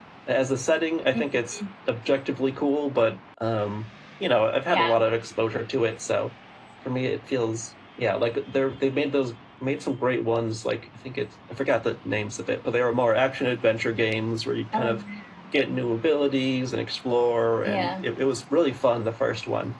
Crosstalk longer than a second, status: none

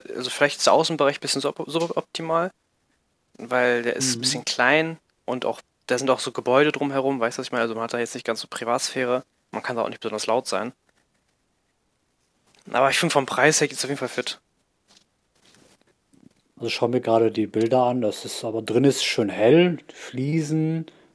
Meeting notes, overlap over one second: none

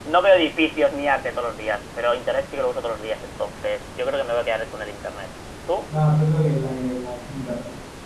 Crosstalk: none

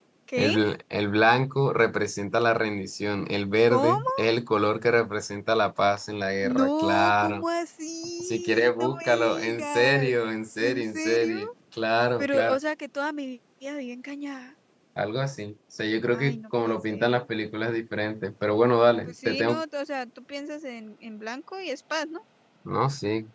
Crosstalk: present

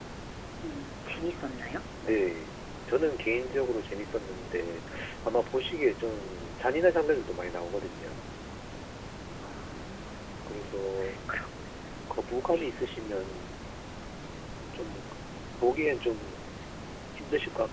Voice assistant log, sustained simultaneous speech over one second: none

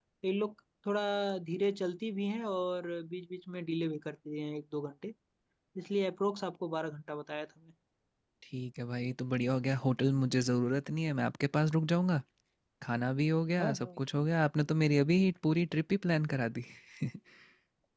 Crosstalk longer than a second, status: none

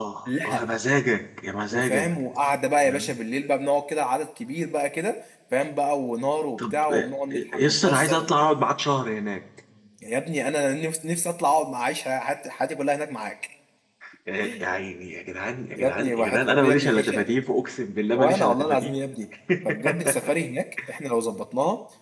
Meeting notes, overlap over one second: present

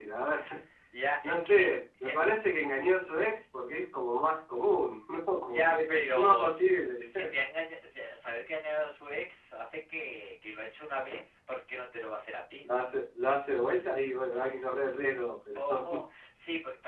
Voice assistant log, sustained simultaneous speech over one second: present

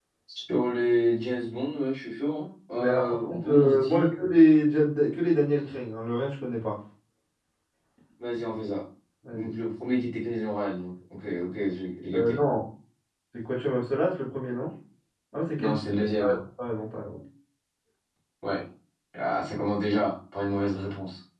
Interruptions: present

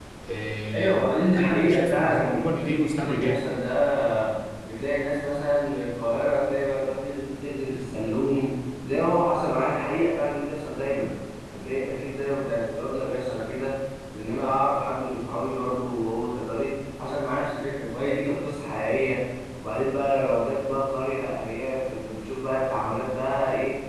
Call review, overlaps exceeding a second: present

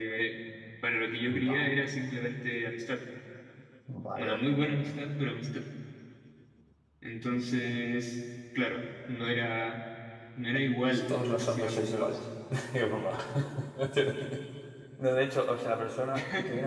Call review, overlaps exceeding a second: present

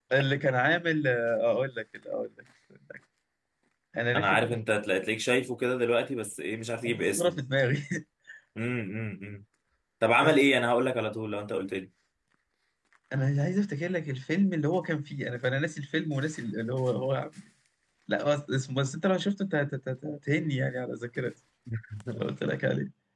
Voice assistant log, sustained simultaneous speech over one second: none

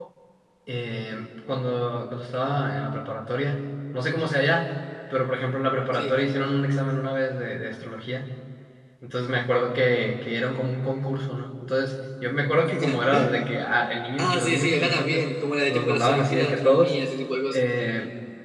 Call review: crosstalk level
present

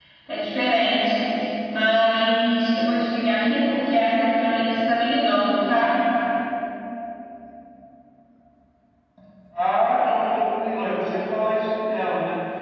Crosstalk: none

